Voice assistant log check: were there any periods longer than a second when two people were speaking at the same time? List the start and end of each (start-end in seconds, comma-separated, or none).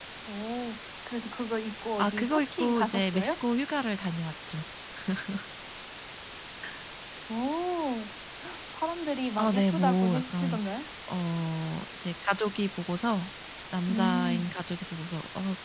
2.0-3.3, 9.4-10.6